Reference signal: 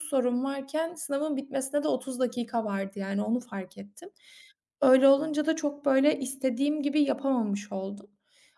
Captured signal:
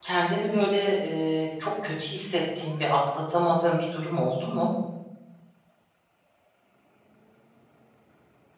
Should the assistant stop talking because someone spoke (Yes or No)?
Yes